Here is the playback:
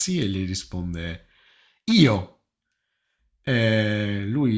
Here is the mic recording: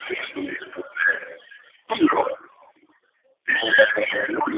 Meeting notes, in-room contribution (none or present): none